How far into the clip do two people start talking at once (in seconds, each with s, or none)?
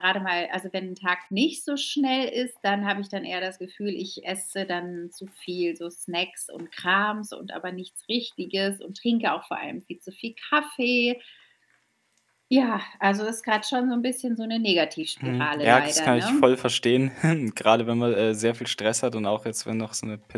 15.2 s